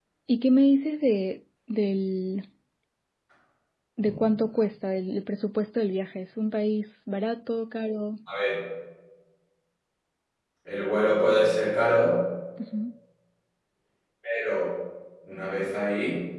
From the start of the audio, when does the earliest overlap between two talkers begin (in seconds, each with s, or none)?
none